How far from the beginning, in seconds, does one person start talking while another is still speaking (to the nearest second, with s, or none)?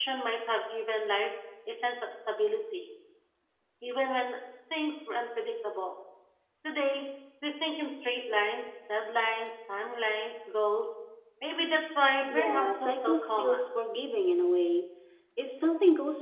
12 s